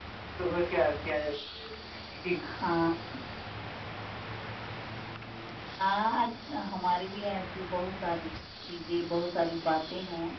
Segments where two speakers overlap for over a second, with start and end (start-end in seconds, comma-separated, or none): none